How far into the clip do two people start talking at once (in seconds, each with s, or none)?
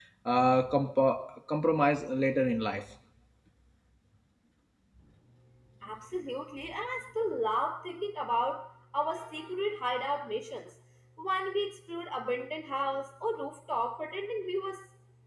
none